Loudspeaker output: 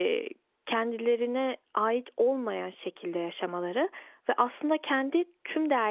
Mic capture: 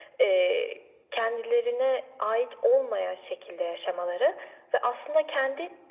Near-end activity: none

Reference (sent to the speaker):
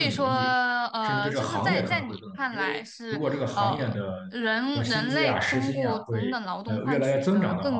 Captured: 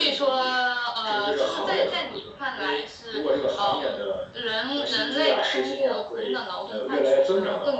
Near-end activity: none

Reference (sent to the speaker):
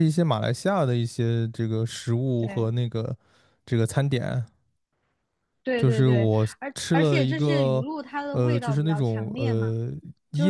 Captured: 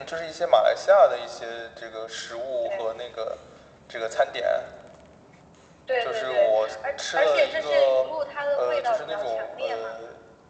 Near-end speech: none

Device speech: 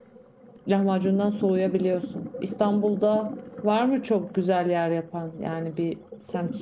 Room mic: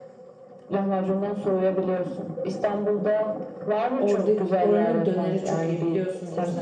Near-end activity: present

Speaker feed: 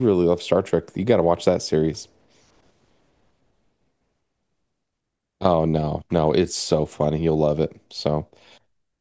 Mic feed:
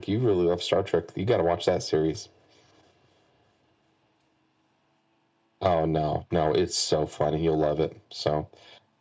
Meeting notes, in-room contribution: none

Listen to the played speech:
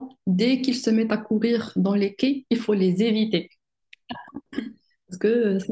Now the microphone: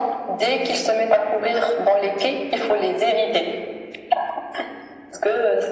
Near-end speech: none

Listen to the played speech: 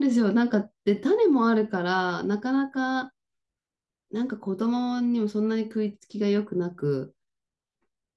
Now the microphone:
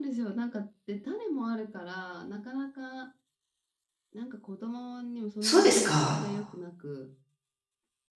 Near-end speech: present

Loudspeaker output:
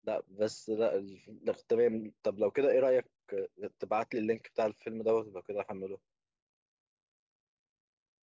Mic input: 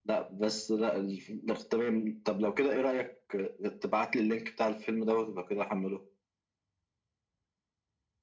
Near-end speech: none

